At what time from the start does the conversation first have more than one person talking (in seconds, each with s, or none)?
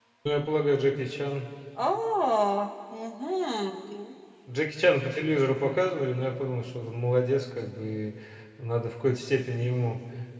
none